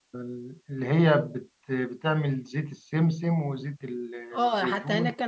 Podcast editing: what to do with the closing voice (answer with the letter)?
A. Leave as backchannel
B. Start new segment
B